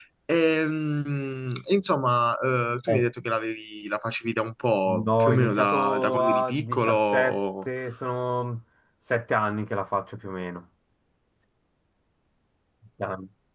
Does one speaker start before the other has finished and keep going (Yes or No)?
Yes